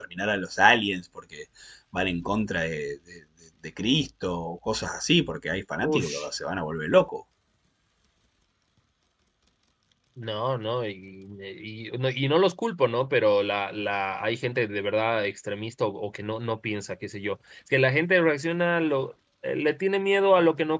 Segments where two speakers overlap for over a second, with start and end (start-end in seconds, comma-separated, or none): none